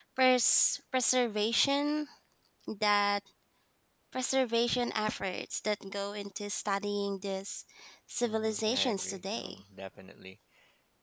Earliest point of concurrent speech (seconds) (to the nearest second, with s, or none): 8 s